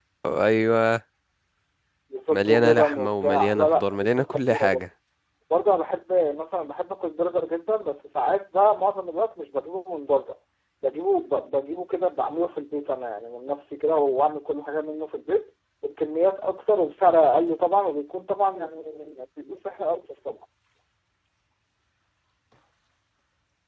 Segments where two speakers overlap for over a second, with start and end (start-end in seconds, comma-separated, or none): 2.3-4.8